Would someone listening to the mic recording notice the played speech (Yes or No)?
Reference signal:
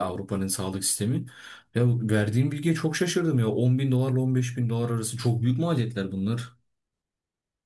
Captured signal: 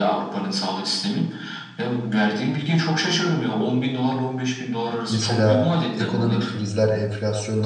Yes